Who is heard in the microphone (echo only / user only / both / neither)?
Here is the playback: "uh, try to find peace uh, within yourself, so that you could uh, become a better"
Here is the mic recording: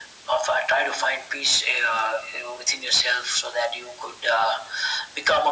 echo only